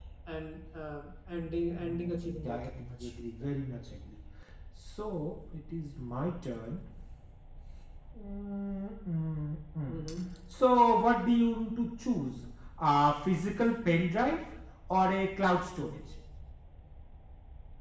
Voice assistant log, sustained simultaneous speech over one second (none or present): present